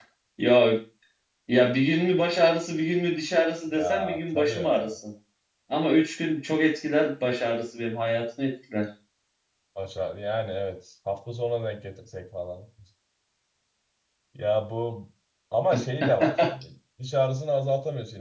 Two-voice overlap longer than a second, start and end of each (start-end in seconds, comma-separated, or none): 3.7-5.0